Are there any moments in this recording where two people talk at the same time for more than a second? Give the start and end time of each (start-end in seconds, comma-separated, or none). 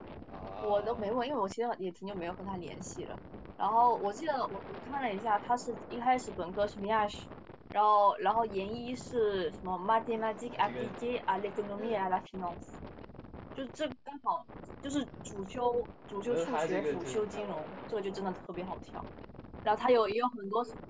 16.3-17.8